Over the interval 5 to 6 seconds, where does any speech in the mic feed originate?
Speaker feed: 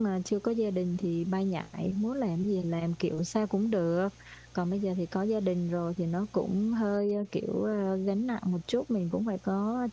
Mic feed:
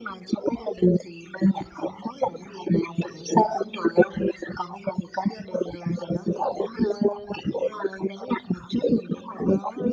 echo only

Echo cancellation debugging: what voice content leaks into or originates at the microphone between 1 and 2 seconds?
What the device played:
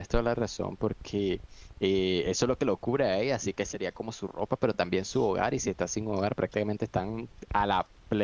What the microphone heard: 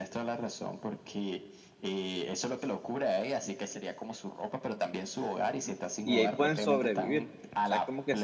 echo only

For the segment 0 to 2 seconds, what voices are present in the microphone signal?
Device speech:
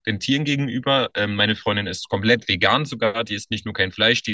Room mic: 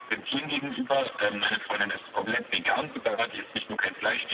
echo only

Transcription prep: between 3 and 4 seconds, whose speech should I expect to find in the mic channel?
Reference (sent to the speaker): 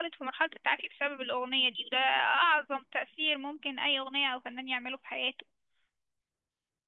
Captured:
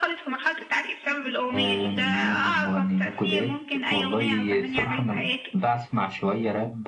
both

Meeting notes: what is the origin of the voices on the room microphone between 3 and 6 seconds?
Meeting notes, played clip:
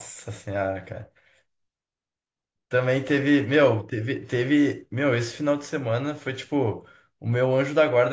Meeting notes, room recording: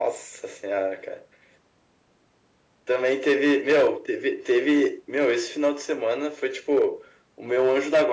echo only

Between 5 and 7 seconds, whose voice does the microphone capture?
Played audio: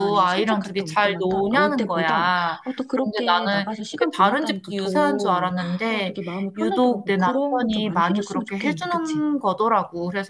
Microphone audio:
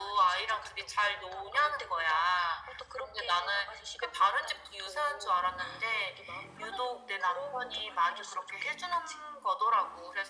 echo only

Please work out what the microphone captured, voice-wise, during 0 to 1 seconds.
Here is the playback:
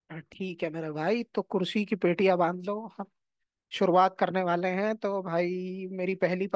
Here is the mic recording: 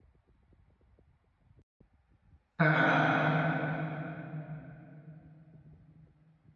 neither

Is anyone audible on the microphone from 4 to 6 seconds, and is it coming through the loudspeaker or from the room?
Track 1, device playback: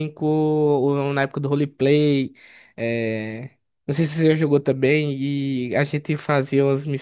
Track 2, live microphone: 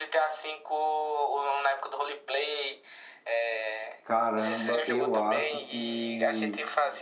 both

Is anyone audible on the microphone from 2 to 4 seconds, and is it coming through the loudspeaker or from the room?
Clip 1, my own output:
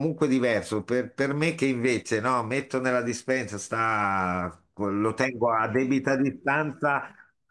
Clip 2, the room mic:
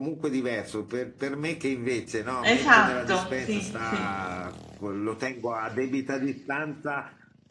both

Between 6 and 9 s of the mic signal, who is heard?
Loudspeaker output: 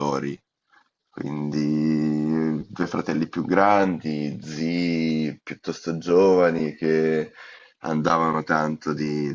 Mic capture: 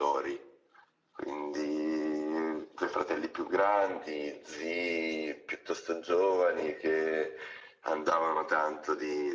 echo only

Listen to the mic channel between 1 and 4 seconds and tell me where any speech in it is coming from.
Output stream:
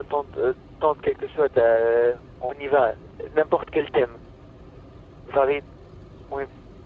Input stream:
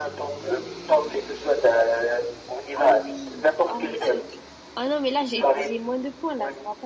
both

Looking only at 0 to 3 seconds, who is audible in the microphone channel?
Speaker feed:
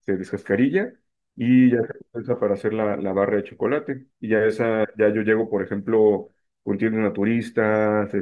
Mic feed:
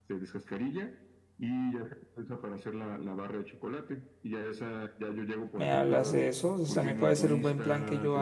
echo only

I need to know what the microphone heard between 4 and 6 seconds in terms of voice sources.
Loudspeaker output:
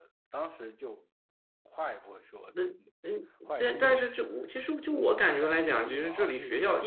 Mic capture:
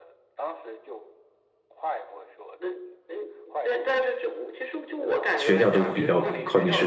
both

